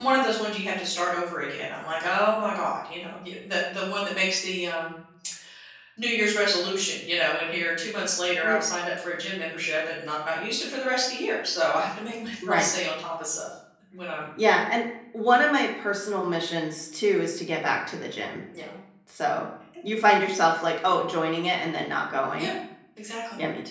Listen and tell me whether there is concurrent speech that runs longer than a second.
No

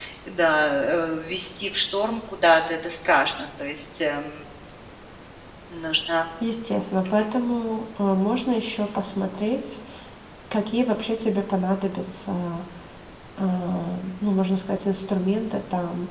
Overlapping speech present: No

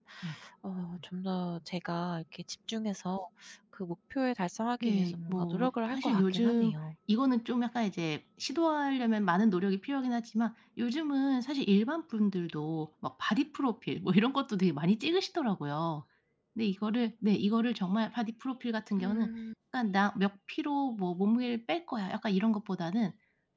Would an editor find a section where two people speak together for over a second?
Yes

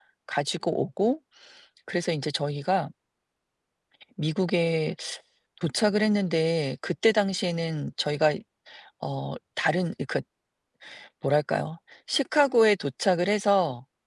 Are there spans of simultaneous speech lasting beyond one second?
No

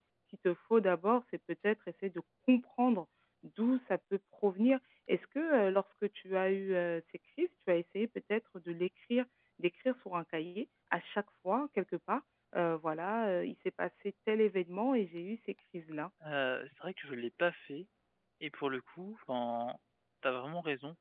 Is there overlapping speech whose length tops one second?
No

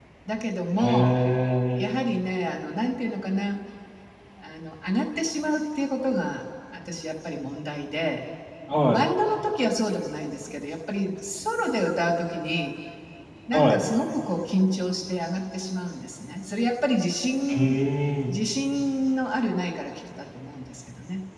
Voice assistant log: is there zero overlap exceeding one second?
Yes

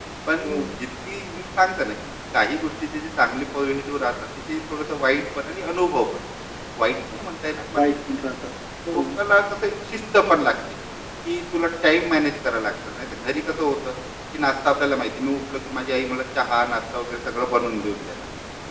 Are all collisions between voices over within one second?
Yes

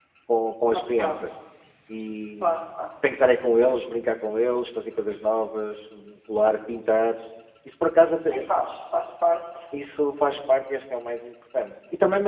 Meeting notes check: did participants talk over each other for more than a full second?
No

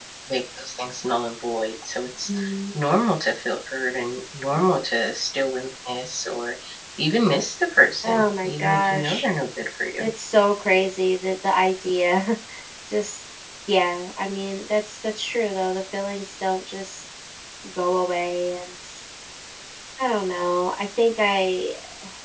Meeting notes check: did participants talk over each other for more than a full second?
Yes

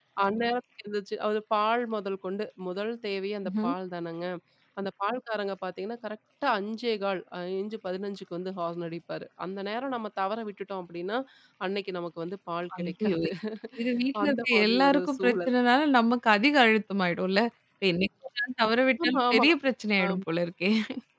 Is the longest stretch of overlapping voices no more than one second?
No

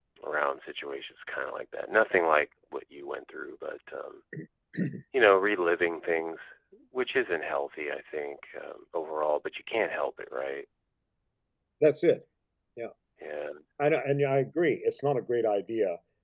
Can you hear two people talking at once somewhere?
No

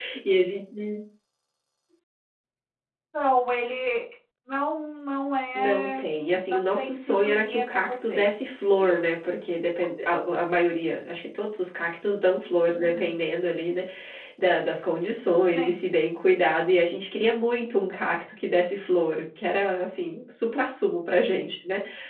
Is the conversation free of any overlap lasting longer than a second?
No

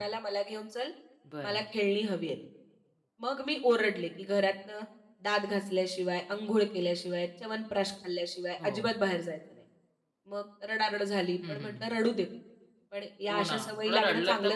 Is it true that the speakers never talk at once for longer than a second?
No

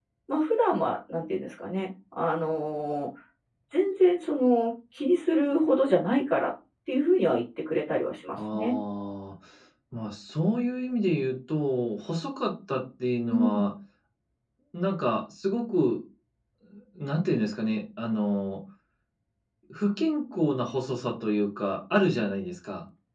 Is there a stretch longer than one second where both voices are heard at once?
No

